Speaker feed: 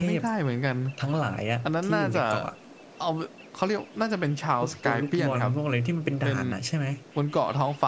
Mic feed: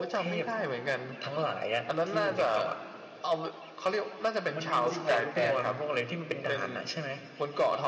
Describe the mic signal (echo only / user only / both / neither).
both